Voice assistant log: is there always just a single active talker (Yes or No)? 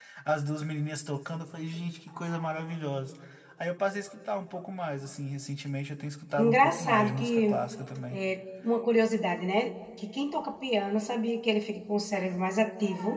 No